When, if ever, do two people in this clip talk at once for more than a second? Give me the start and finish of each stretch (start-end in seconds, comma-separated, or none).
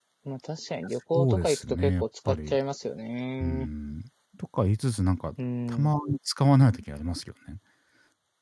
1.1-2.6